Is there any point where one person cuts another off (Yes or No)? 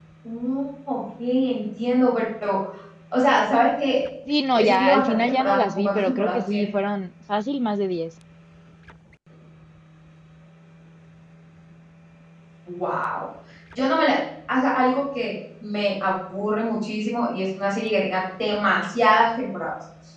Yes